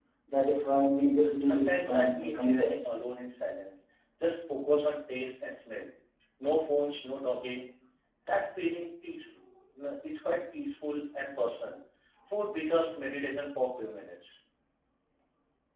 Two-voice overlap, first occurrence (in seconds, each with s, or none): 1.4 s